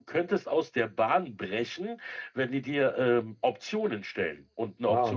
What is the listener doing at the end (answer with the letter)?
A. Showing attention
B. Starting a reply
B